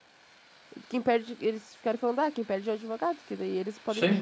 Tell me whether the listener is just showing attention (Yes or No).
Yes